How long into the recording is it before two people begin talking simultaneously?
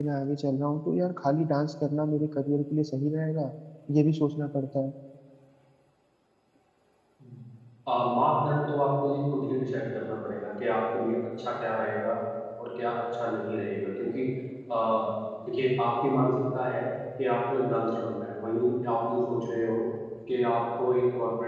none

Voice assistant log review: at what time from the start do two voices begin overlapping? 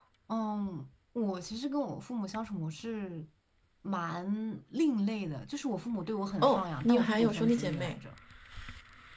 6.4 s

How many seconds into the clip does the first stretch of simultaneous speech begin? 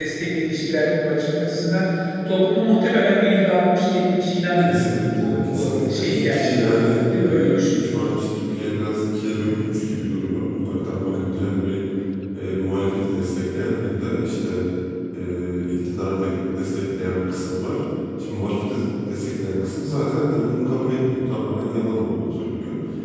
4.6 s

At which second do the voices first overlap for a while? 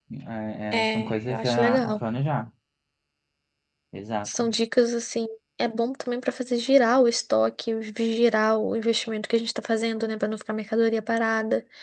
0.7 s

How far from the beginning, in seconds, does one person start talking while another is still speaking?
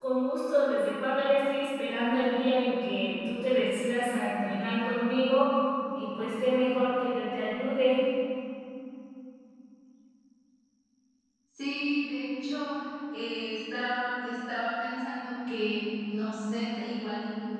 none

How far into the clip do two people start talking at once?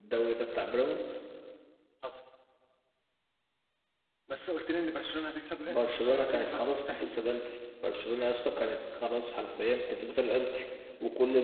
5.6 s

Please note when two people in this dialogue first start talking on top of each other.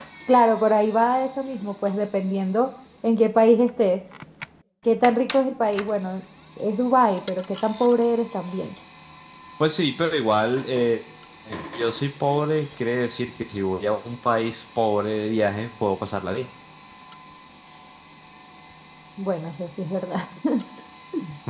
none

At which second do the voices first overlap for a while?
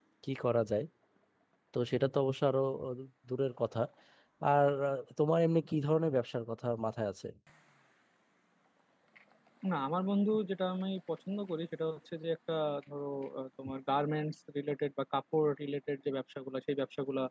none

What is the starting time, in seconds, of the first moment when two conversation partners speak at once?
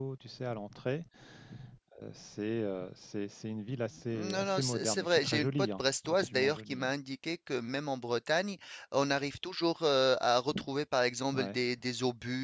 4.1 s

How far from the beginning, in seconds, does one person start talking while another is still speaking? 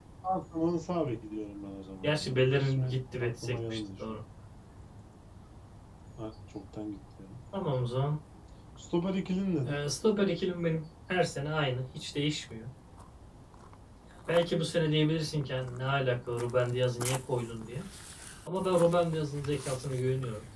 2.0 s

